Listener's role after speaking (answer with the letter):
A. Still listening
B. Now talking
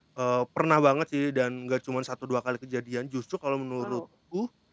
A